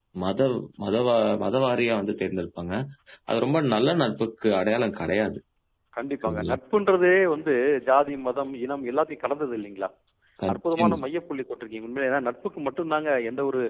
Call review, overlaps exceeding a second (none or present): none